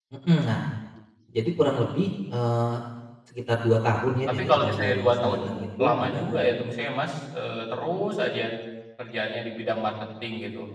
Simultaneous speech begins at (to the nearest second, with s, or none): 4 s